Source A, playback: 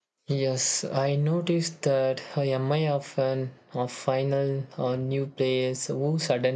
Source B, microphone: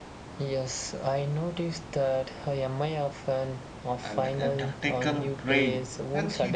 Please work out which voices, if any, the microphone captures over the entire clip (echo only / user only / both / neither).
both